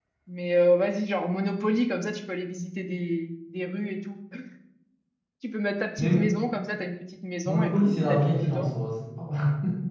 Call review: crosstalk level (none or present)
present